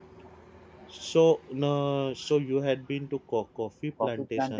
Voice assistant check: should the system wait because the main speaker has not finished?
No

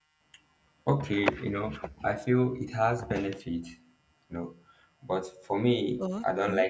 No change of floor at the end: Yes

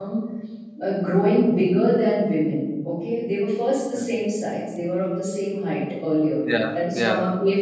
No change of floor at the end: Yes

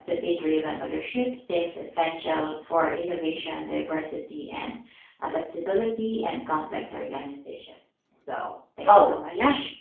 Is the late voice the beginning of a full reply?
Yes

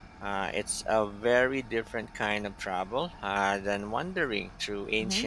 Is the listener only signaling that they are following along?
No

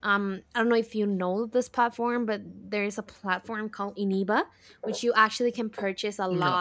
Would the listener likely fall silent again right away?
Yes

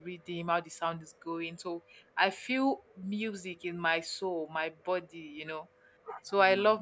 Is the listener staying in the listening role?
Yes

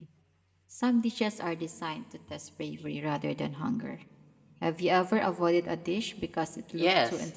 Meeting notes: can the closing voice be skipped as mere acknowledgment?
No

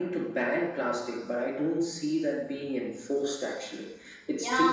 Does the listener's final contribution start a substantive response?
Yes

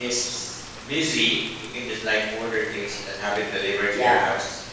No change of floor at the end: No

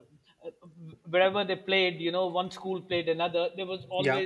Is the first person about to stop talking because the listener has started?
No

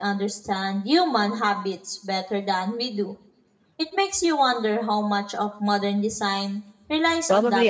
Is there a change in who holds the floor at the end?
Yes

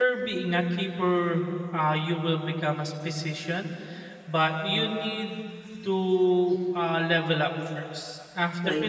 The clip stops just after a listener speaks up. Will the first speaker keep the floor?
Yes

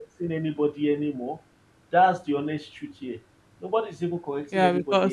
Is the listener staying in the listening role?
No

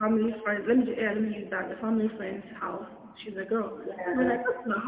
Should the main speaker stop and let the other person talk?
No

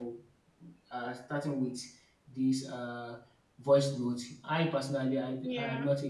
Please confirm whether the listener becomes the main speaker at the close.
No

